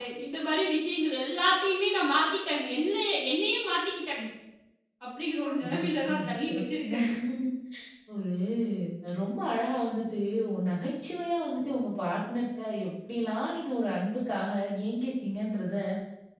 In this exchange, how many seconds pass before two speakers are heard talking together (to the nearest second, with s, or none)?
6 s